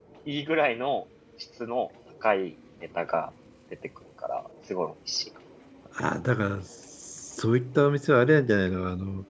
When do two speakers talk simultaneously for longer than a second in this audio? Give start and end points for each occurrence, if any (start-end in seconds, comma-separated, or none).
none